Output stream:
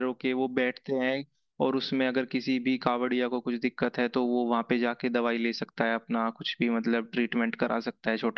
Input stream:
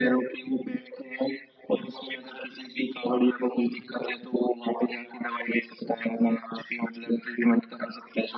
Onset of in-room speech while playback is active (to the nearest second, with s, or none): none